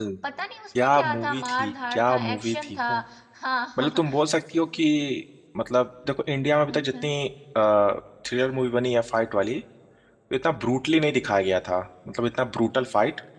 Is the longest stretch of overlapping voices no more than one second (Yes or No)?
No